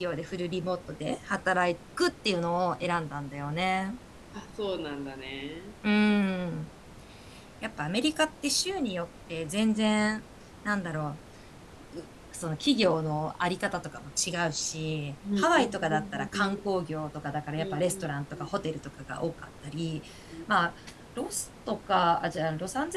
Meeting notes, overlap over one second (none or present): present